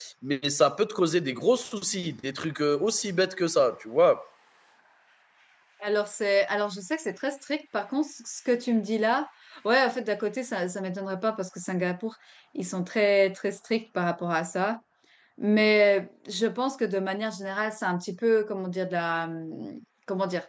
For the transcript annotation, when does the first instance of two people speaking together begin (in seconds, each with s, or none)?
none